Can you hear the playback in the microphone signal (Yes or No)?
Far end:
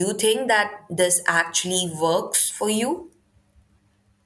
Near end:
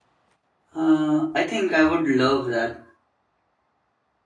No